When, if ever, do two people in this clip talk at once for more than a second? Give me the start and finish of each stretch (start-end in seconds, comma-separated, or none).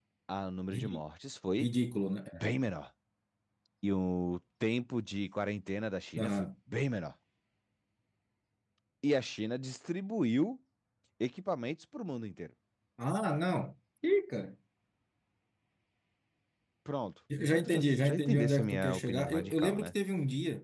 17.4-19.9